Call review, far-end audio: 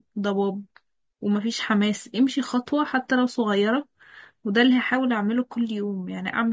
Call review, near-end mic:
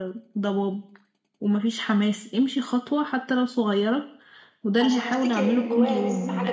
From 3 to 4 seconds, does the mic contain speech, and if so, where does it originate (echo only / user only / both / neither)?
echo only